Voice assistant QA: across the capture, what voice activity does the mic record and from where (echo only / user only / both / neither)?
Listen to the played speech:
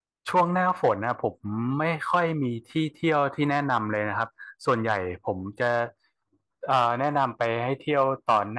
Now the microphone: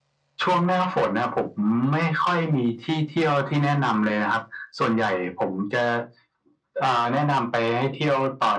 echo only